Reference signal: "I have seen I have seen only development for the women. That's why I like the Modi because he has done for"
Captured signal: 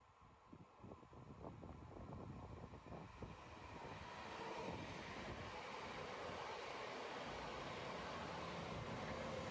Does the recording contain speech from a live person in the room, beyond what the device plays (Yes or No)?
No